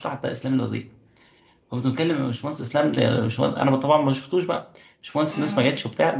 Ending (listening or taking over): listening